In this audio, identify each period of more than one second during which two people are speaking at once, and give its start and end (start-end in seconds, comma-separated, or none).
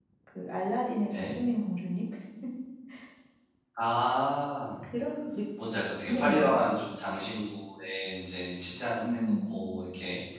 none